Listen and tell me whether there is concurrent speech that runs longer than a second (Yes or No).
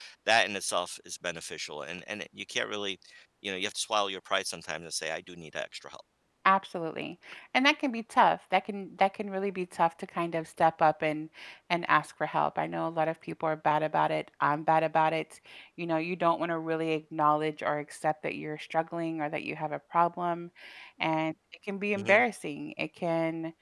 No